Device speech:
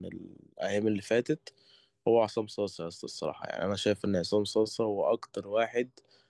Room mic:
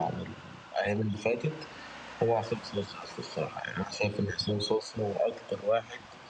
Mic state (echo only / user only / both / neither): echo only